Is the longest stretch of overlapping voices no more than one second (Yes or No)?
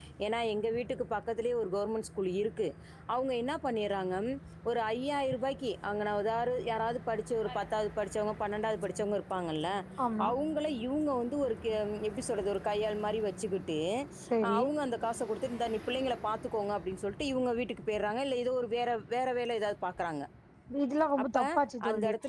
Yes